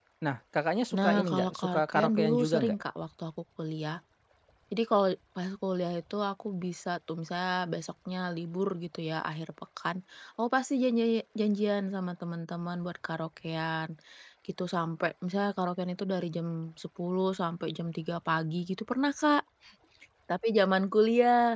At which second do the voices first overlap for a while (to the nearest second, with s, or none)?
1 s